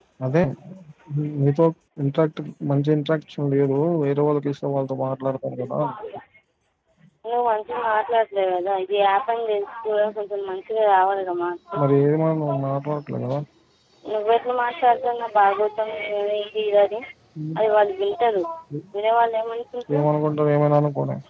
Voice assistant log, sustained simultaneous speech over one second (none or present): none